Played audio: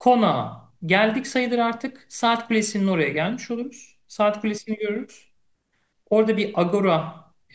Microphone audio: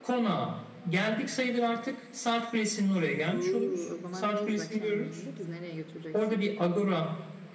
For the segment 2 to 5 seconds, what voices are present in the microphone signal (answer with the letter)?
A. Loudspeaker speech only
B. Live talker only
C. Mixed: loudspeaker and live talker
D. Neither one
C